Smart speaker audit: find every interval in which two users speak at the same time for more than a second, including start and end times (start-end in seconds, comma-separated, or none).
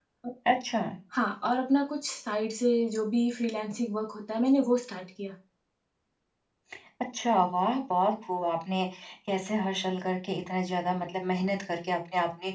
none